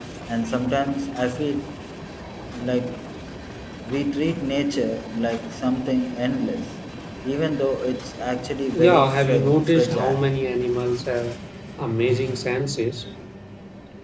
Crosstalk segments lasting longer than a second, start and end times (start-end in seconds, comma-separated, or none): 8.7-10.2